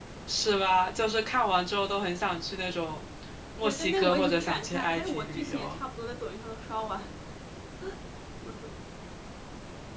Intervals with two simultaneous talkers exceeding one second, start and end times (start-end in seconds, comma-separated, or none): 3.6-5.8